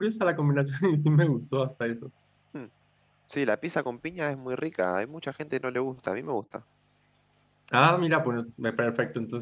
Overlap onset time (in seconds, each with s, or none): none